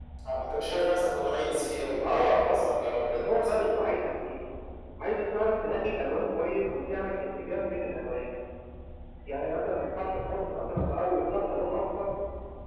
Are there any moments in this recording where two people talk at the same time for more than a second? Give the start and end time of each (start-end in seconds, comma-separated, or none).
2.1-3.7